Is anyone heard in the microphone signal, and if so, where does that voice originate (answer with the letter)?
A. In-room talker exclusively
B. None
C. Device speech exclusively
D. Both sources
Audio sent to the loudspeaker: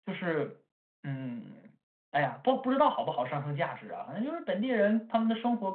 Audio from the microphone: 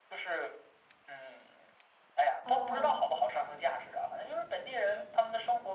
D